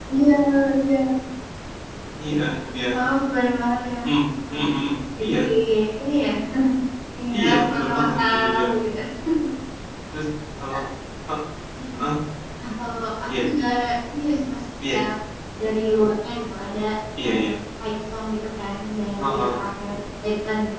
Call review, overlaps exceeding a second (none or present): present